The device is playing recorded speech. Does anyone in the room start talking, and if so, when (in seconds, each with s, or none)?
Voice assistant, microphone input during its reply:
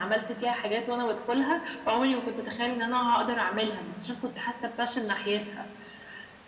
none